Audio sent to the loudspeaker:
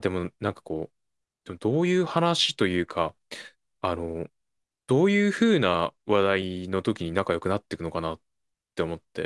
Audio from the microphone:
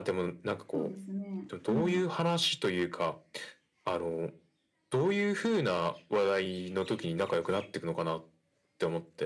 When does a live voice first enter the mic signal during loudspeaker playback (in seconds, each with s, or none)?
0.7 s